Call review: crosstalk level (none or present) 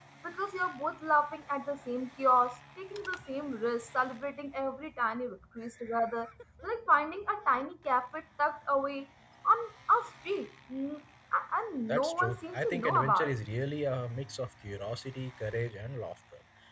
present